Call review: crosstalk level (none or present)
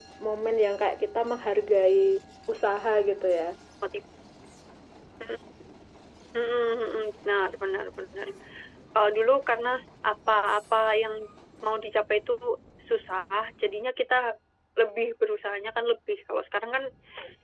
none